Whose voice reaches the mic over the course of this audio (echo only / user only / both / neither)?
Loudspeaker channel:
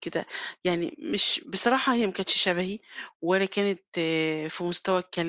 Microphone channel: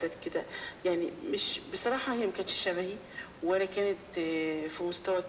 echo only